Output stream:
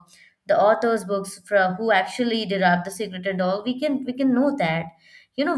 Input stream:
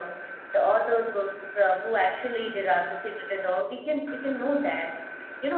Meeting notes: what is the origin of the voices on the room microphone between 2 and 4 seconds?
echo only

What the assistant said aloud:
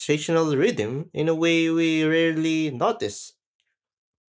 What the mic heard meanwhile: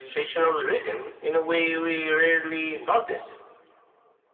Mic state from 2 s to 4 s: echo only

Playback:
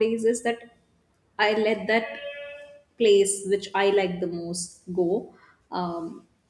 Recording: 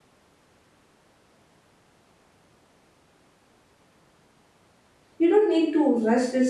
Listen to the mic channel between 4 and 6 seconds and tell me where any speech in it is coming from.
user only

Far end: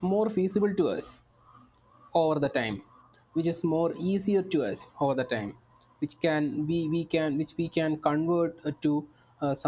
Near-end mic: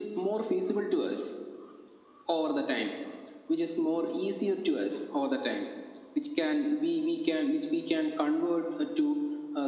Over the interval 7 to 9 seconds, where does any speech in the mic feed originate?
echo only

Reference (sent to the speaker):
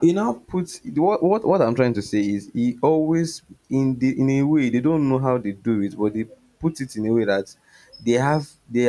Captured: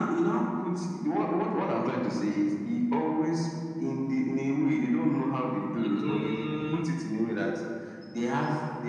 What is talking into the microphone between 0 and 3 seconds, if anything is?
echo only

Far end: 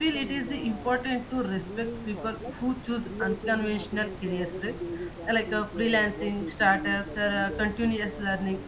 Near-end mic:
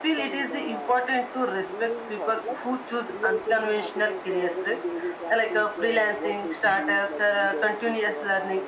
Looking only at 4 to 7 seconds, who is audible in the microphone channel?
echo only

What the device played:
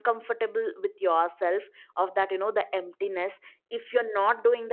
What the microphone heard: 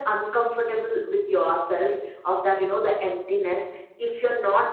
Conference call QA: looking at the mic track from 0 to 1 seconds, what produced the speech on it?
echo only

